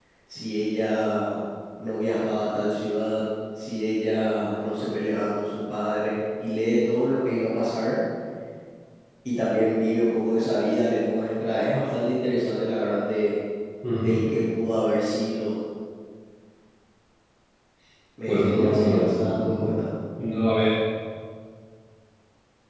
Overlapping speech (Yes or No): Yes